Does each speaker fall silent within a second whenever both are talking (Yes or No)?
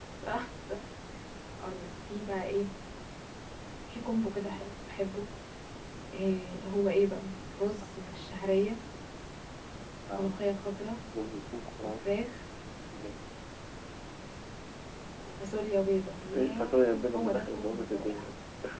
No